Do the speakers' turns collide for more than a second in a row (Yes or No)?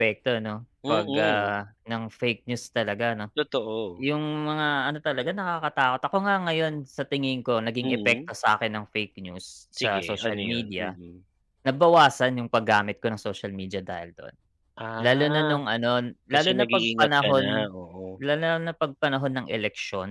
Yes